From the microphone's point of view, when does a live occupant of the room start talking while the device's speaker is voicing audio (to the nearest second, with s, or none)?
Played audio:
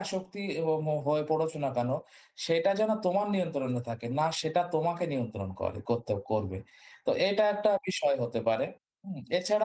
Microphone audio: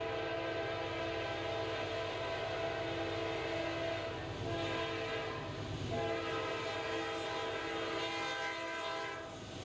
none